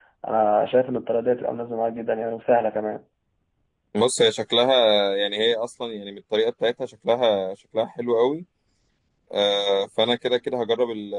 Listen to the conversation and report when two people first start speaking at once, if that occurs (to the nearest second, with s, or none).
none